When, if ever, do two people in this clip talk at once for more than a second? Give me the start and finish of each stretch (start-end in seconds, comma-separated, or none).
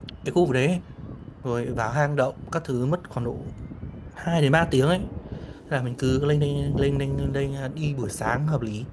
none